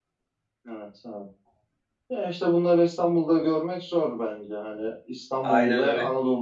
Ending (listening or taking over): listening